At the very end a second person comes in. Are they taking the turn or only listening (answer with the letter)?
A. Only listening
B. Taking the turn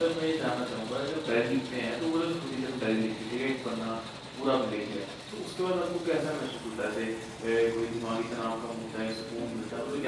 B